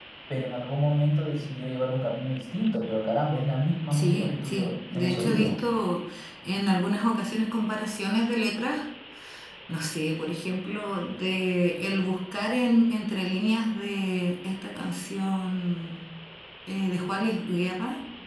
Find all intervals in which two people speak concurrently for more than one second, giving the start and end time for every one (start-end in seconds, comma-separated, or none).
3.9-5.5